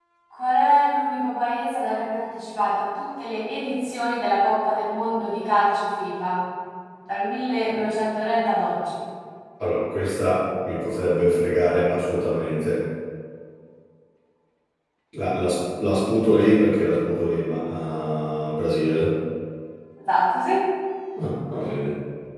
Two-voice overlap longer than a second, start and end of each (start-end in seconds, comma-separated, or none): none